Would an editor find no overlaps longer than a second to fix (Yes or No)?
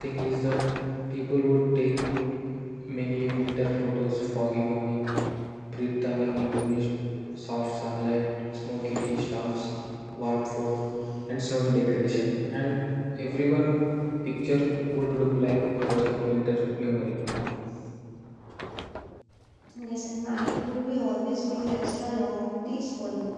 Yes